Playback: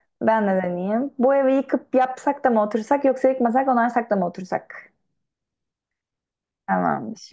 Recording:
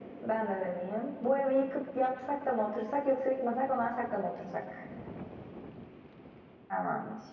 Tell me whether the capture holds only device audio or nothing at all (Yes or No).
Yes